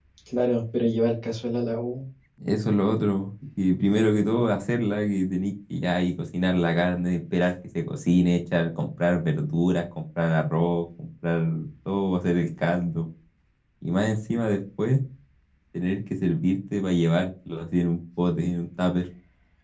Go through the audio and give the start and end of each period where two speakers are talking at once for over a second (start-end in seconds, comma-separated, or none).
none